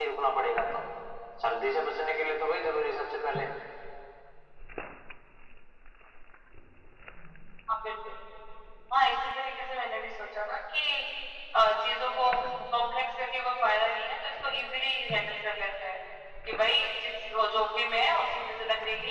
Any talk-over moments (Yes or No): No